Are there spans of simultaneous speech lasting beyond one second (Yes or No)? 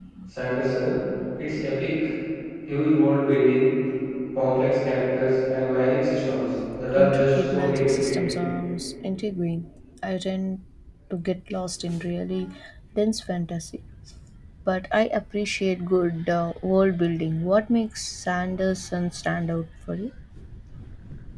Yes